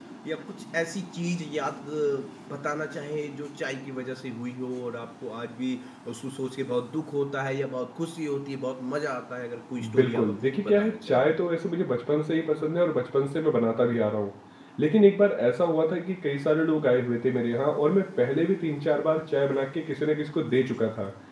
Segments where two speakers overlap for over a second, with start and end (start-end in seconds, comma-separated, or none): 9.9-11.3